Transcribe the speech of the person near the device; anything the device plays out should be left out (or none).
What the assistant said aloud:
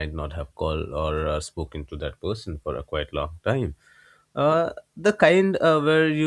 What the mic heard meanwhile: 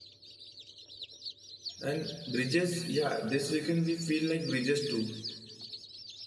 and bridges yeah this weekend we feel like bridges too